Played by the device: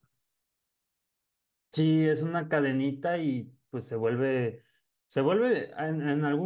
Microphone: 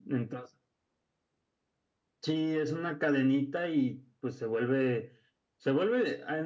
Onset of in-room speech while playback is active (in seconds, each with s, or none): none